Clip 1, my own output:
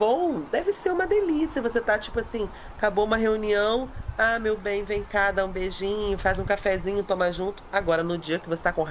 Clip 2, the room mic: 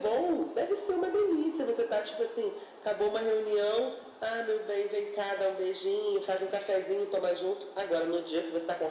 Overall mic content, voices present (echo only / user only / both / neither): echo only